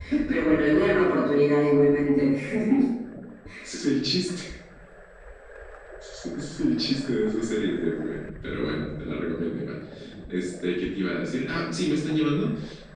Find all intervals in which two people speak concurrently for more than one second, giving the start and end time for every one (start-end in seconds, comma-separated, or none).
none